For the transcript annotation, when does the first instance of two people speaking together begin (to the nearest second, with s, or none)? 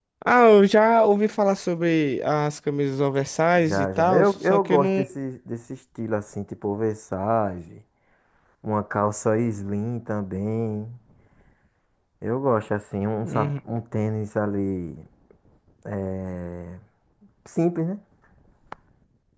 4 s